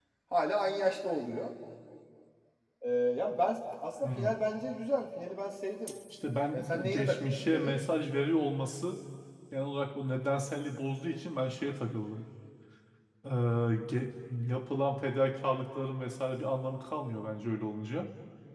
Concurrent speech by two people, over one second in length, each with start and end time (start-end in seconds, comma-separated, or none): 6.5-7.8